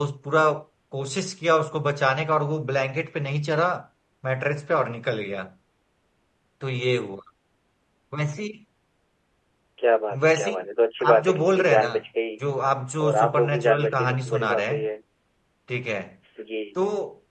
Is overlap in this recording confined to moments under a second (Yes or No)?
No